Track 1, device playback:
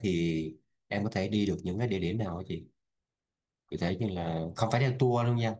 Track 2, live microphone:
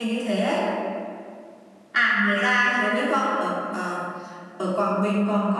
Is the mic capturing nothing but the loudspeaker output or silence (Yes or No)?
No